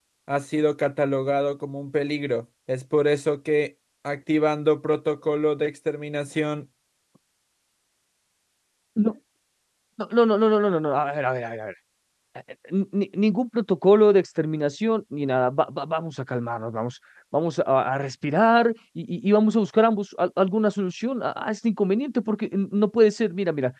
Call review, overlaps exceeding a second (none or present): none